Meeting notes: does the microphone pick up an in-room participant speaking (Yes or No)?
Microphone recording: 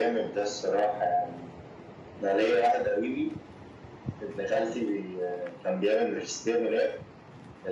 No